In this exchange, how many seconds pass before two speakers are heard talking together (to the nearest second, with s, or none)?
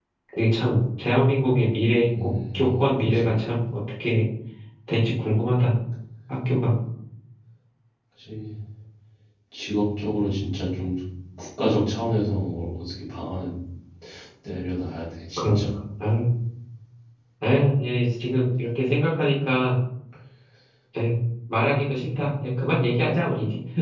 2 s